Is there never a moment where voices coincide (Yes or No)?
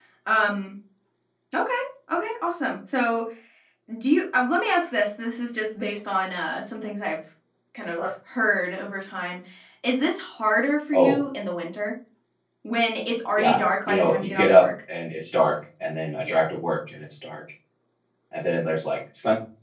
No